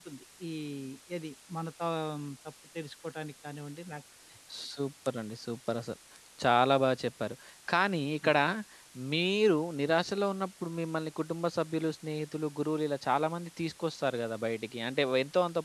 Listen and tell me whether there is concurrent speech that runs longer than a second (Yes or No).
No